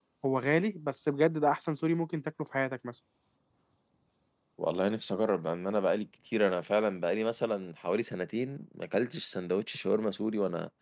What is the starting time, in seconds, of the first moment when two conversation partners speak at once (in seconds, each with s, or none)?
none